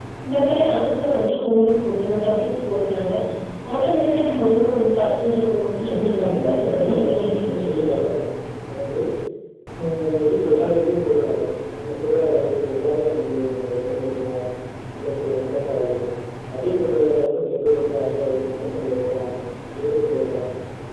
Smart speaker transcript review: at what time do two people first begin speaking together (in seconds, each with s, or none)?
5.8 s